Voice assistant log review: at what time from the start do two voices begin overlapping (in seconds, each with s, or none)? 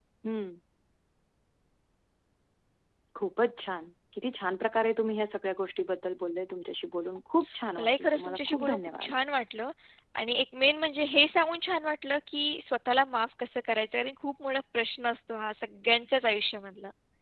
7.8 s